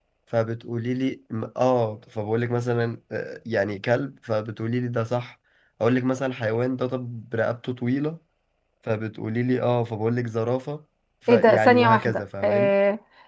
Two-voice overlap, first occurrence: 11.3 s

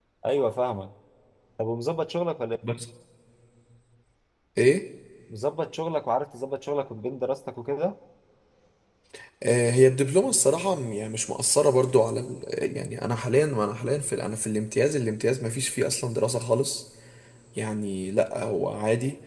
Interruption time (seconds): none

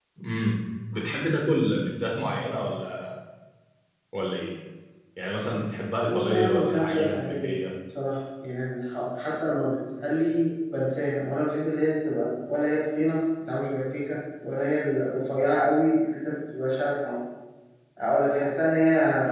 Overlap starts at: 6.1 s

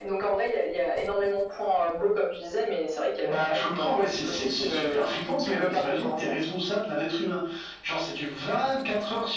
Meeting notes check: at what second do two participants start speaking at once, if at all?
3.2 s

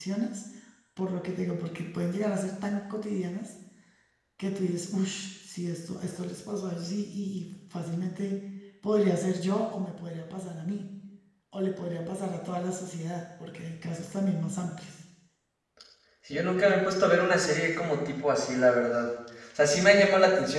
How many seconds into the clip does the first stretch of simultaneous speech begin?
none

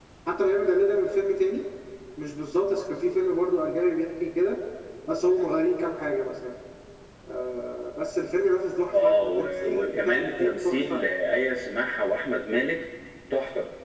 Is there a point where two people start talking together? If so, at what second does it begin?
8.9 s

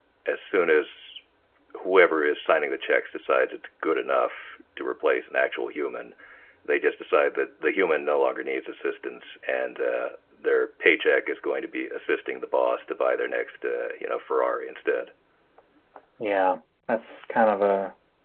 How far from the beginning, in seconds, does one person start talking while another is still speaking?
none

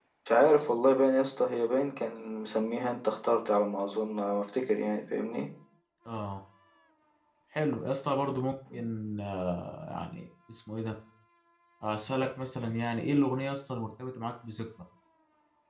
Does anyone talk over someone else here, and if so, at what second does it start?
none

